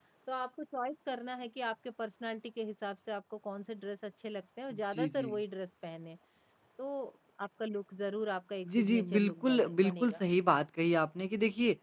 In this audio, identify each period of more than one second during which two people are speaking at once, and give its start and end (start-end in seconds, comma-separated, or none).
8.7-10.2